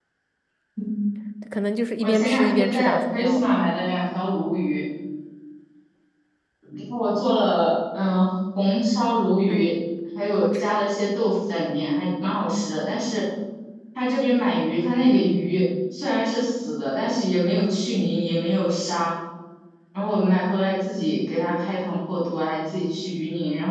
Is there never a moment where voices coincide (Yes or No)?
No